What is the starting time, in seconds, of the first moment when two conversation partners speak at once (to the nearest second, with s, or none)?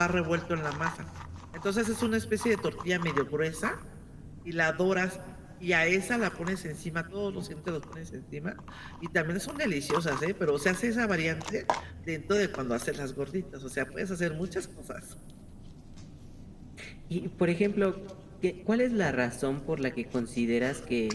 none